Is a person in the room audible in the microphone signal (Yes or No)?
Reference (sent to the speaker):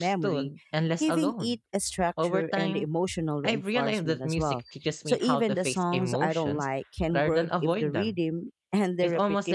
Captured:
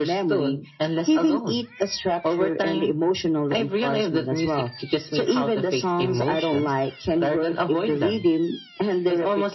No